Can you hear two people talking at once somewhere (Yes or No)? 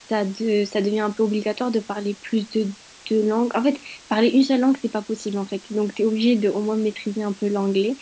No